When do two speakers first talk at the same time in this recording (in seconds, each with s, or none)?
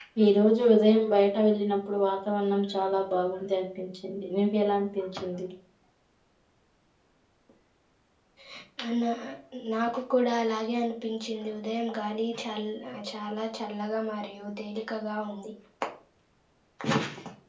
none